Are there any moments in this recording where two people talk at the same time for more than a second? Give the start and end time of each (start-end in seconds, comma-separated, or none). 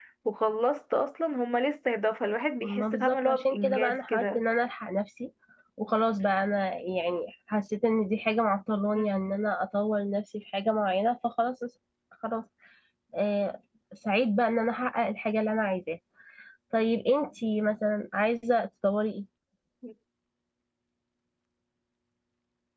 2.6-4.4